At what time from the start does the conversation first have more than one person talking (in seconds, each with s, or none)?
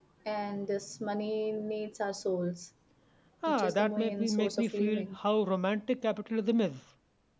3.5 s